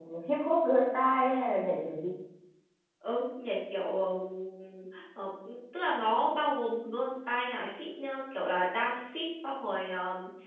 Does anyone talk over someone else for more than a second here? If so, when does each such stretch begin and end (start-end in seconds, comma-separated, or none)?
none